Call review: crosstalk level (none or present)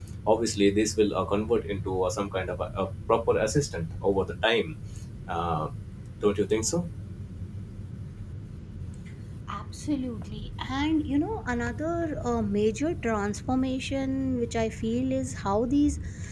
none